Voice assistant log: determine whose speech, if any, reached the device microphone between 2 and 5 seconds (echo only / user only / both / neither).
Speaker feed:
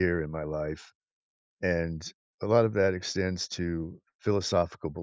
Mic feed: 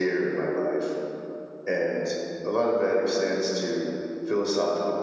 echo only